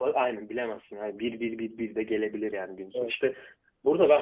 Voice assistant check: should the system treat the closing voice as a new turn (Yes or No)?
No